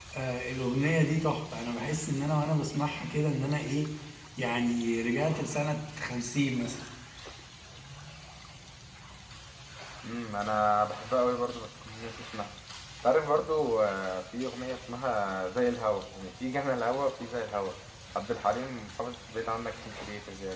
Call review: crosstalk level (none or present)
none